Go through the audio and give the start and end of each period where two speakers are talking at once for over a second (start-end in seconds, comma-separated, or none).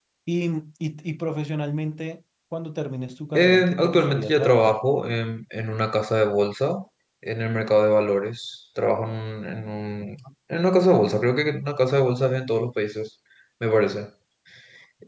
3.3-4.8